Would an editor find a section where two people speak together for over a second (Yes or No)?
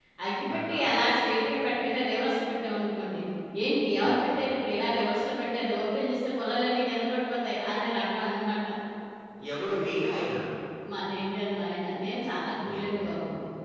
No